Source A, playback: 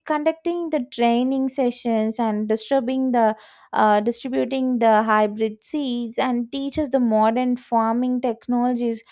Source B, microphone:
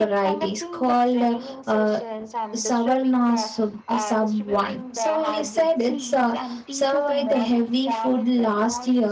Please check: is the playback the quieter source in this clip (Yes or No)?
Yes